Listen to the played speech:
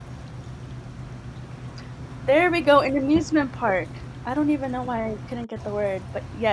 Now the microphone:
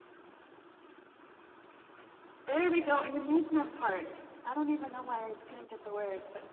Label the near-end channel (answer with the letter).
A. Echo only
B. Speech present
A